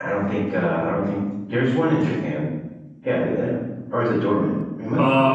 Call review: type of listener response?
taking over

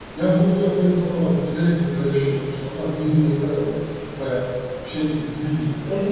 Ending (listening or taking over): taking over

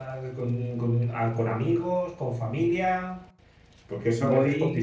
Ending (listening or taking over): listening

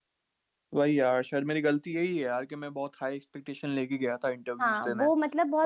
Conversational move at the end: taking over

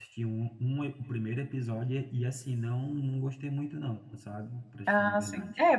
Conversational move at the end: taking over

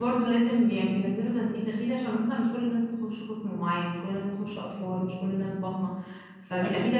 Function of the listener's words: listening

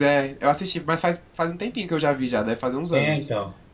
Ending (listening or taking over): taking over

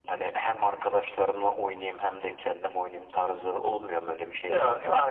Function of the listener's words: taking over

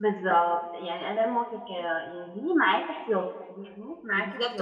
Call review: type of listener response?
taking over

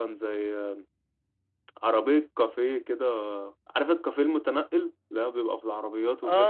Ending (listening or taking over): taking over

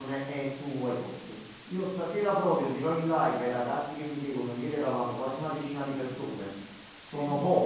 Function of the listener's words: listening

